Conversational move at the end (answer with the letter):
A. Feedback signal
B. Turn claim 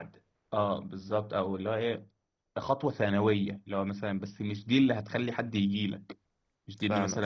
A